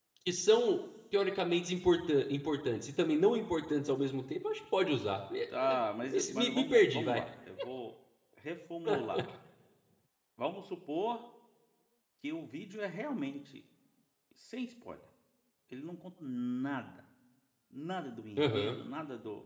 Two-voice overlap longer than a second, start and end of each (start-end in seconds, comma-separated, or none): 5.6-7.2